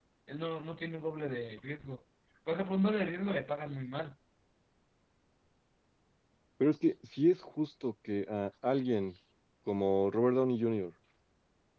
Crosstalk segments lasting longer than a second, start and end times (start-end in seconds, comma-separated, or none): none